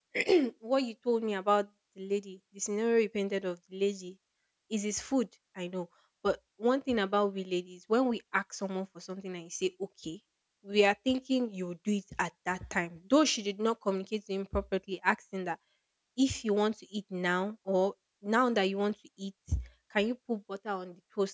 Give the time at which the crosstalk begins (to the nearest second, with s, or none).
none